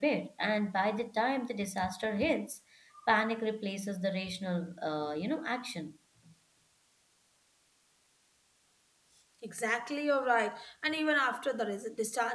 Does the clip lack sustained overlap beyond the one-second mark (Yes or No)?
Yes